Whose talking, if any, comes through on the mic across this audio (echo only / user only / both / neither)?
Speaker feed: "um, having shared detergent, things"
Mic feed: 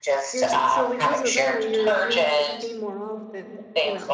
both